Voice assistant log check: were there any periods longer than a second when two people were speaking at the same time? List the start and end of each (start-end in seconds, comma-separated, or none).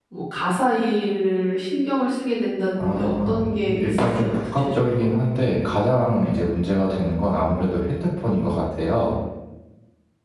2.8-5.1